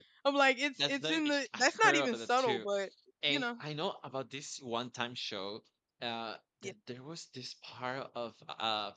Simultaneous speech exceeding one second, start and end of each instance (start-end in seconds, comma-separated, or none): 0.9-2.6